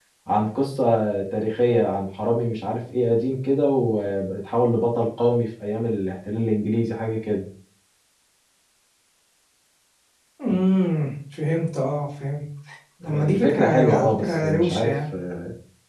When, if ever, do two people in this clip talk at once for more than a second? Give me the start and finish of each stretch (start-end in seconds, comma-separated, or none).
13.0-15.0